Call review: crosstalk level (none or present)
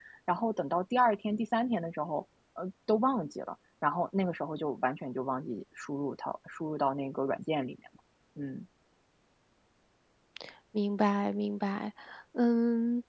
none